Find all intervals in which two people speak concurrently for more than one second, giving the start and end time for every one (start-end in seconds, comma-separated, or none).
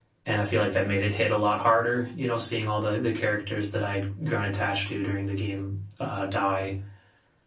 none